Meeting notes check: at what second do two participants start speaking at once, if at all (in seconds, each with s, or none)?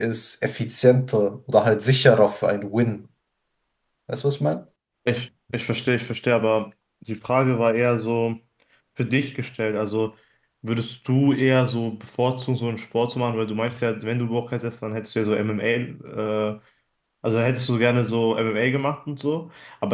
none